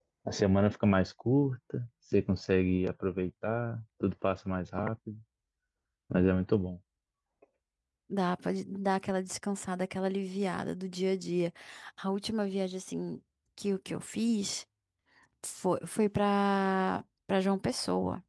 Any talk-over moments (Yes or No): No